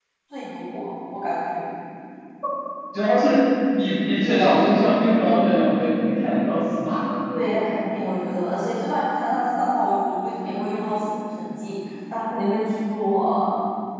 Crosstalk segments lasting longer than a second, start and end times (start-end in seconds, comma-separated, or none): none